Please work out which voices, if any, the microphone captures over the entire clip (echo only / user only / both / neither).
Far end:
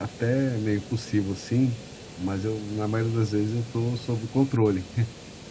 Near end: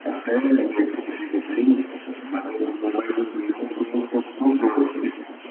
echo only